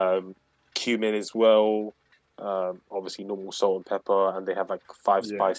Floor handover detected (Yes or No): No